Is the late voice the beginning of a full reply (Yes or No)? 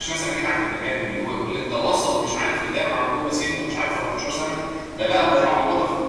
No